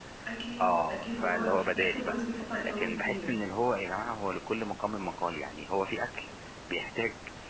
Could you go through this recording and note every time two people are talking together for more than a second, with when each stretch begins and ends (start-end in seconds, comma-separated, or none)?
0.6-3.3